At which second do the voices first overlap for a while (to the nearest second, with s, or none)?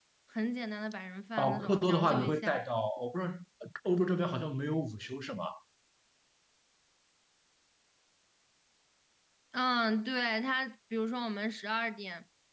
1 s